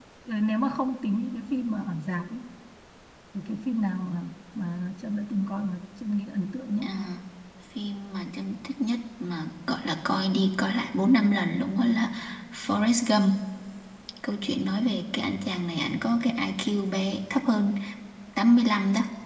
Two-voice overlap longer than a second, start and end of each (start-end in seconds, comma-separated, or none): none